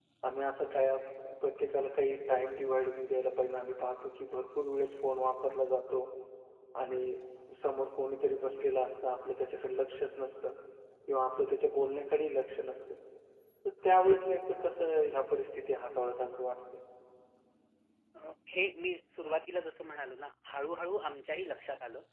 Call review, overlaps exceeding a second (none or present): none